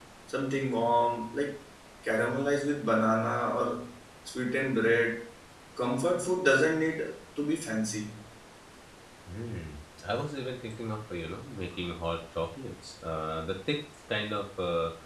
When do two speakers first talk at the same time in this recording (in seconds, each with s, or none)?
none